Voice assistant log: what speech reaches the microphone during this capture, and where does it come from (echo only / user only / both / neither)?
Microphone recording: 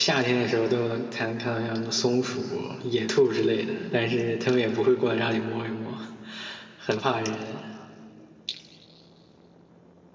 user only